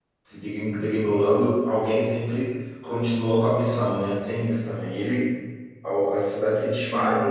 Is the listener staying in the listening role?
Yes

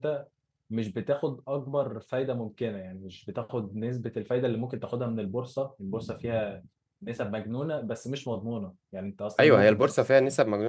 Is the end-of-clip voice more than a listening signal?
Yes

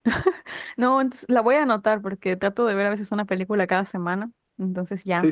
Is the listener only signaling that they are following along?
No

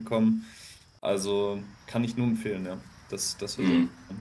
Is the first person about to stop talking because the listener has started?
Yes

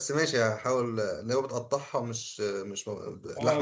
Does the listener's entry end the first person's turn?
Yes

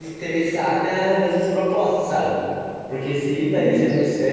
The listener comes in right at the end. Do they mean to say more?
No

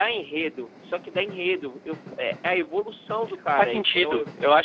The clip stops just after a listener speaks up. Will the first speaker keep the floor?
No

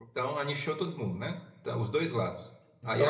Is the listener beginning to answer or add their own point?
No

